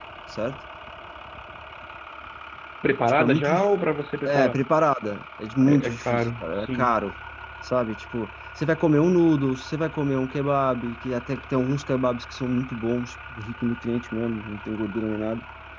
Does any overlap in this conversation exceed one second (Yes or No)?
Yes